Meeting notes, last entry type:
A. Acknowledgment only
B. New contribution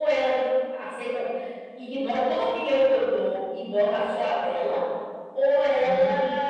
A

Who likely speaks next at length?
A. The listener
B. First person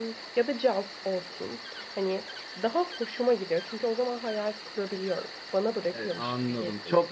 A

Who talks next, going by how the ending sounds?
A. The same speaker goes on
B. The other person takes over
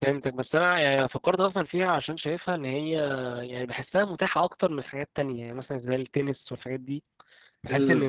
A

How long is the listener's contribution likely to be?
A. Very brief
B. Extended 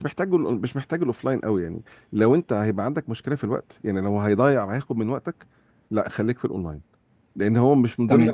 A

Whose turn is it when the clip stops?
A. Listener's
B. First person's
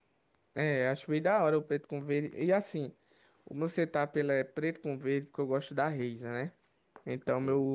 B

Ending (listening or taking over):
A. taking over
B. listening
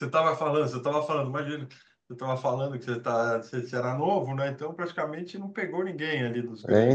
A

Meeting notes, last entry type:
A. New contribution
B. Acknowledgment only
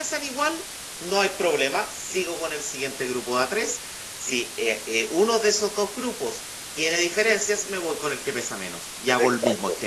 A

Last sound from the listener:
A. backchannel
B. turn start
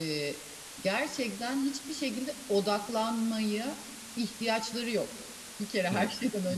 A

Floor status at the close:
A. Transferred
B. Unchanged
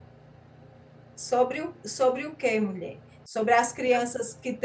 B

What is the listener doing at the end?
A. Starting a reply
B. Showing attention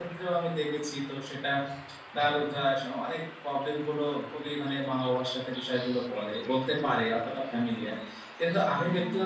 B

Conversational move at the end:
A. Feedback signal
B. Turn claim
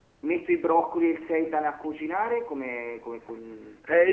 B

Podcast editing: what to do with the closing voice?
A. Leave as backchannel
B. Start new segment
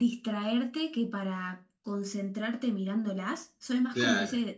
A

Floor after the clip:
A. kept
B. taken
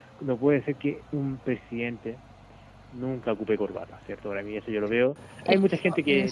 A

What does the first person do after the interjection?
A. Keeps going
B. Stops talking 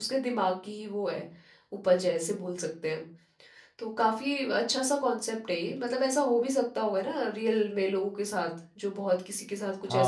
B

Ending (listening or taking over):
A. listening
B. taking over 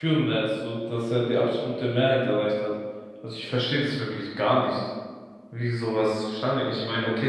A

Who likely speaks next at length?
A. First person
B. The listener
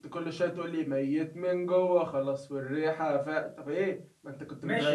B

